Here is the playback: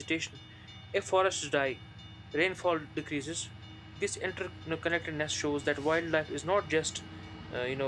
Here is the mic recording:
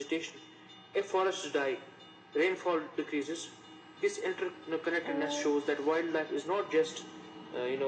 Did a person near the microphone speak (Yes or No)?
Yes